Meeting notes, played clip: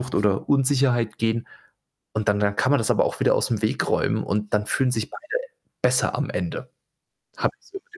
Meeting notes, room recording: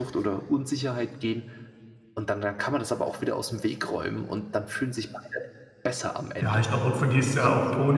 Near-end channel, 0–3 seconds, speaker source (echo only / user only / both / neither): echo only